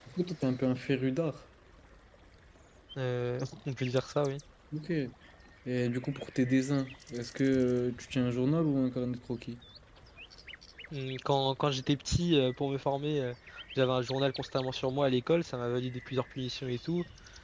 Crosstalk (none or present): none